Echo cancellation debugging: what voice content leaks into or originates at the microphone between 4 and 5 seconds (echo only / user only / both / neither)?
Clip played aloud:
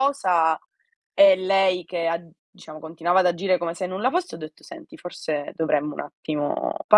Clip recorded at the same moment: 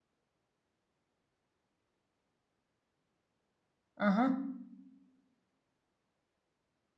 user only